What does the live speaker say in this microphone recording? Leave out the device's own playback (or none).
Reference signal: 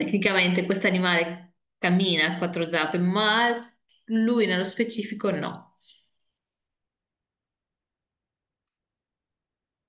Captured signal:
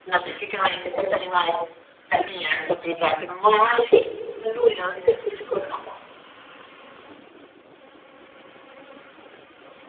Sì,